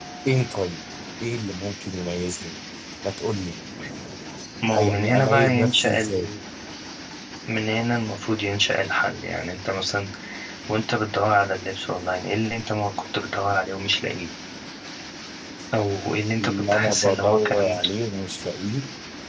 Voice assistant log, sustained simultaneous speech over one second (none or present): present